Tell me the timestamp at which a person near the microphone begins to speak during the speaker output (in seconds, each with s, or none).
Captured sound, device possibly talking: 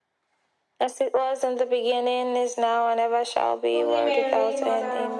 3.7 s